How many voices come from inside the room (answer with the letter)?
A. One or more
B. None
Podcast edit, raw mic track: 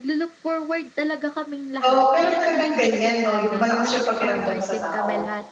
A